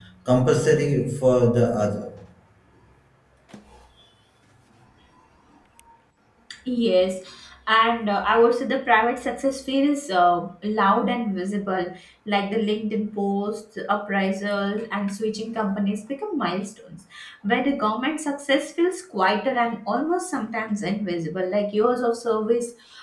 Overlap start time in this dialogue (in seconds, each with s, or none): none